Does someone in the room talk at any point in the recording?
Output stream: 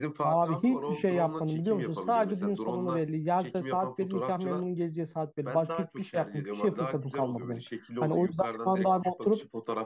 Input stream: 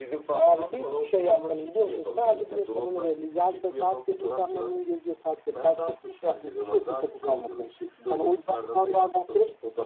No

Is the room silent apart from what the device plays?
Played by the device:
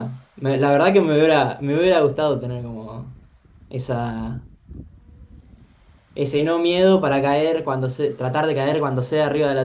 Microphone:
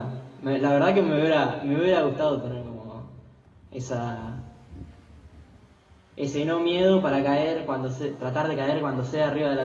Yes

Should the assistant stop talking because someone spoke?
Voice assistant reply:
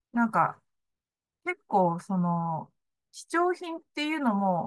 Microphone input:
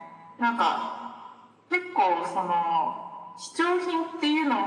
No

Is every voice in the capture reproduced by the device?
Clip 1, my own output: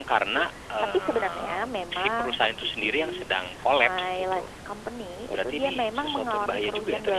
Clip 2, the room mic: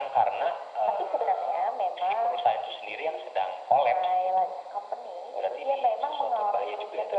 Yes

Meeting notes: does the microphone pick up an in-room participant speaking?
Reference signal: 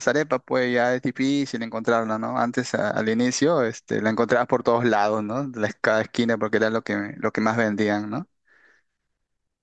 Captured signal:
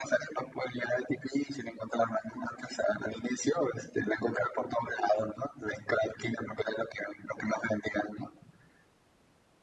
No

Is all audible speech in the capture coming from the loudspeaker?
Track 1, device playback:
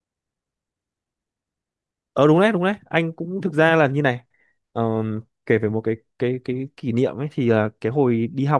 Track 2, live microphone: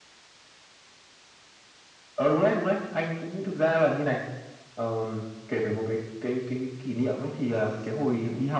No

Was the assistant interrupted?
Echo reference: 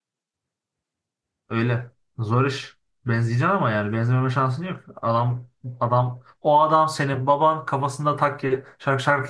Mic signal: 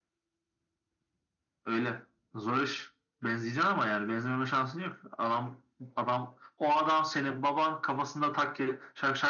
No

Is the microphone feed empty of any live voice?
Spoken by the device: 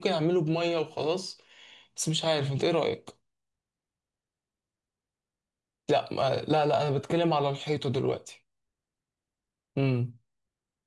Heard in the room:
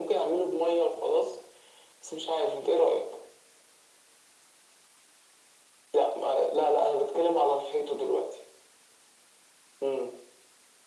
Yes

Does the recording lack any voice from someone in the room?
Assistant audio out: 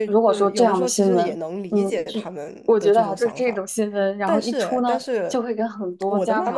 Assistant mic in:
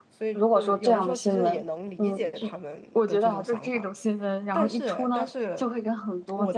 Yes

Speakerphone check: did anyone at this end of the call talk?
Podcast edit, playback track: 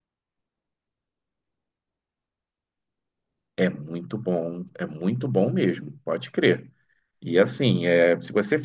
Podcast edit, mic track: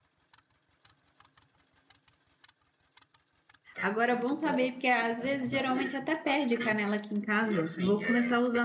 Yes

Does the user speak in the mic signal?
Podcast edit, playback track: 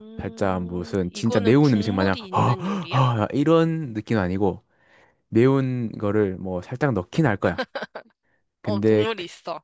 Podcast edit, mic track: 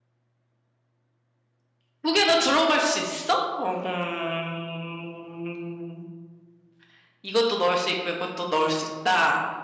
Yes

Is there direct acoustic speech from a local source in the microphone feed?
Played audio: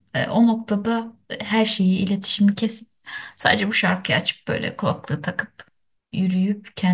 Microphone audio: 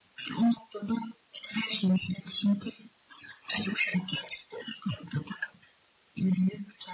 No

